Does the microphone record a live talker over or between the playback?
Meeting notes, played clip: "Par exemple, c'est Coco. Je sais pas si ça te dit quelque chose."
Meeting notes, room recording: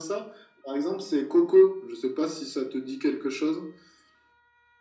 No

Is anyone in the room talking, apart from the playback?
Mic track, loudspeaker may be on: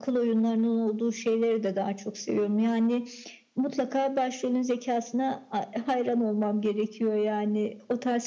No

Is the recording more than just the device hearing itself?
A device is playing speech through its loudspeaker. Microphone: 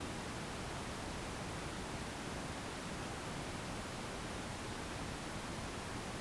No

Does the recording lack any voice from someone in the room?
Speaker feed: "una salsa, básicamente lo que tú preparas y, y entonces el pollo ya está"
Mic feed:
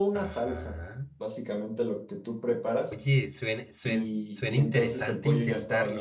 No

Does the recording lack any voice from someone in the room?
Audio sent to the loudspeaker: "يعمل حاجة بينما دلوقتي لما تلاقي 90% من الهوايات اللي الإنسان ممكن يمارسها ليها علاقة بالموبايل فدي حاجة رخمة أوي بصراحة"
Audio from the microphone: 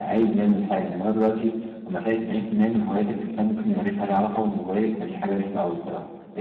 Yes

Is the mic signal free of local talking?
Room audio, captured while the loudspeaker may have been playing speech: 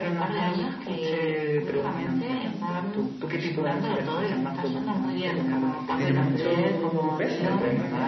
No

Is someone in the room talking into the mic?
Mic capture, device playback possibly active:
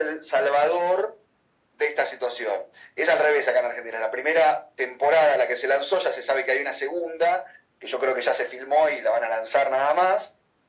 No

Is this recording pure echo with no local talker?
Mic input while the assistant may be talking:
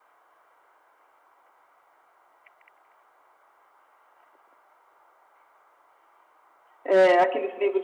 No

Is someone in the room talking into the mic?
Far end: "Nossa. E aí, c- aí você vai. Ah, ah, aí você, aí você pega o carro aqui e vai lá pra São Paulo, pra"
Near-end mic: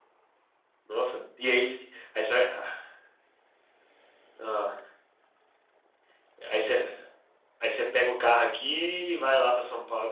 No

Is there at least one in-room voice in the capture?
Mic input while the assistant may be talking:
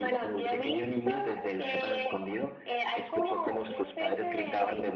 No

